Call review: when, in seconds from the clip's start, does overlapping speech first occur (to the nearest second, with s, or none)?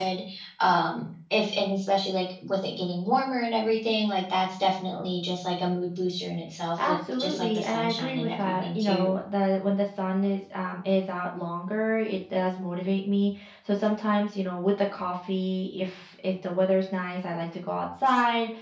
7 s